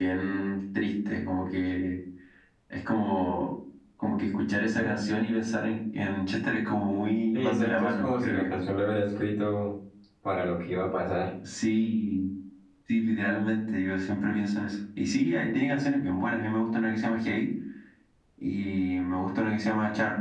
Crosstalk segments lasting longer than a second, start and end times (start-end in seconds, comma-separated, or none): 7.3-8.5